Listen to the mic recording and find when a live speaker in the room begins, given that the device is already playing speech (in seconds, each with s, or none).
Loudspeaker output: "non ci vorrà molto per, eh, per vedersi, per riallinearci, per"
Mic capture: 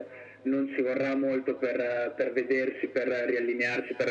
none